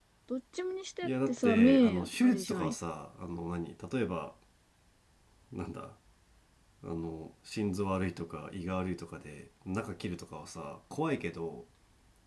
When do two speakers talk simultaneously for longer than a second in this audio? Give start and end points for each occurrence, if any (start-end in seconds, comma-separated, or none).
1.0-2.7